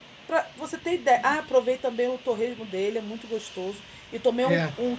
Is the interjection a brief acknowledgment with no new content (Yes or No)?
Yes